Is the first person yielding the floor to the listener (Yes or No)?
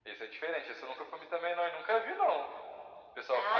Yes